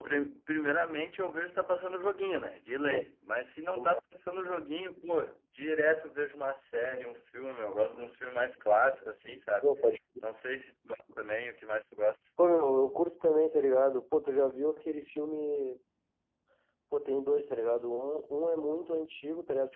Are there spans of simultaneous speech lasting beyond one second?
No

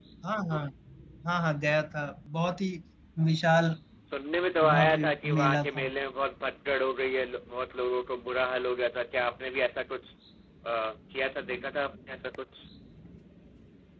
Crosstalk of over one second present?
Yes, from 4.7 s

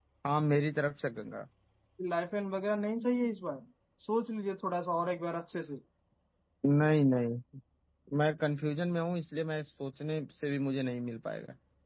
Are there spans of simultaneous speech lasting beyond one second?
No

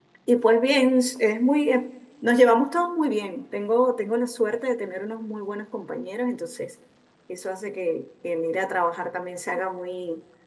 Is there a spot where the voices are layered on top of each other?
No

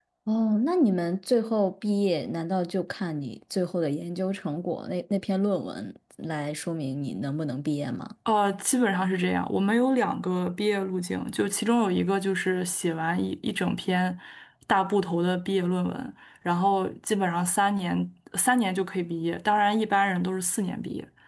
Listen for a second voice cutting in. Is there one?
No

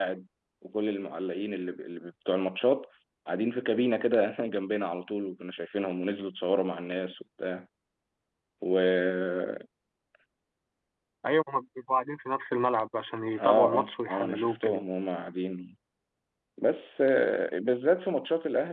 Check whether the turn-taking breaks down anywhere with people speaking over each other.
Yes, from 13.4 s

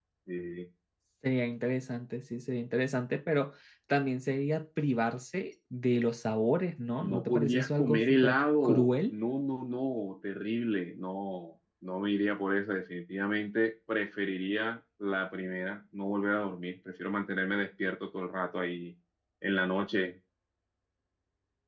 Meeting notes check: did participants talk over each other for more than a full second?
Yes, from 7.0 s

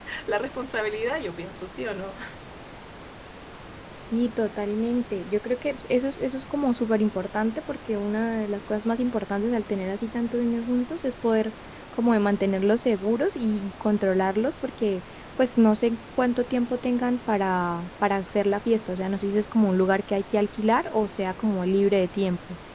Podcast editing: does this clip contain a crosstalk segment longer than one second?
No

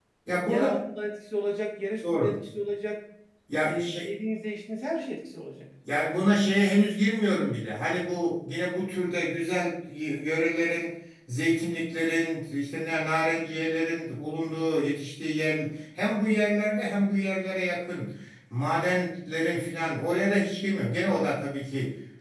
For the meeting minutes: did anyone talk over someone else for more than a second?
No

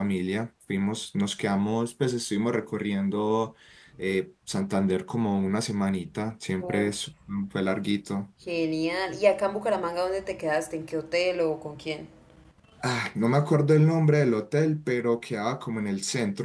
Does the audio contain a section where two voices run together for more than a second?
No

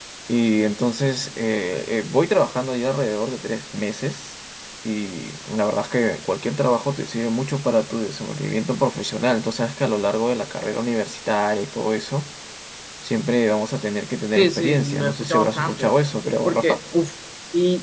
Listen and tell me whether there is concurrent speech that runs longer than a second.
Yes, from 14.4 s

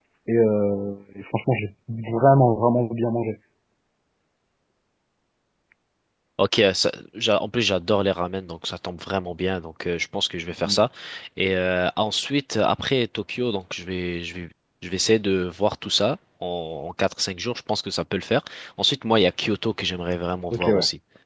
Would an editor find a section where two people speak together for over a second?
No

